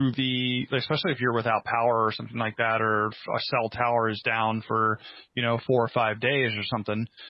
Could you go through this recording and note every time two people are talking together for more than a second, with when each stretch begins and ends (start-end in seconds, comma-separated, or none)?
none